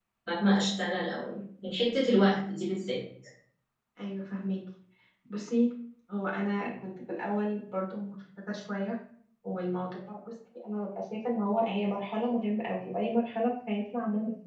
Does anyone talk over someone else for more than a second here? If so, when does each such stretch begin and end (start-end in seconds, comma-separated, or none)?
none